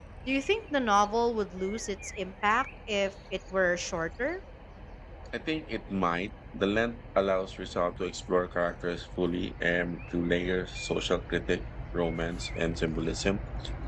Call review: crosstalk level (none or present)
none